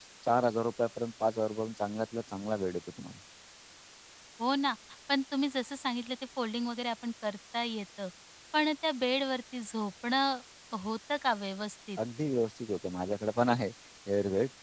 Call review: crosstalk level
none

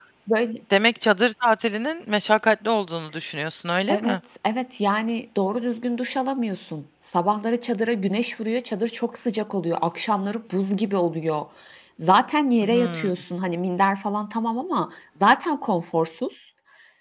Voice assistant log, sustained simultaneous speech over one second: none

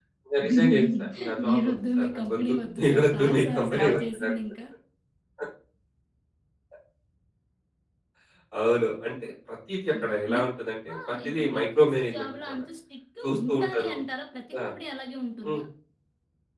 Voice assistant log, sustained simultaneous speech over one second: present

